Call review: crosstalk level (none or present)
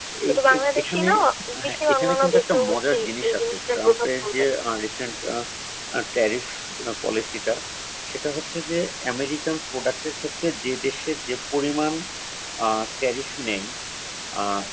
present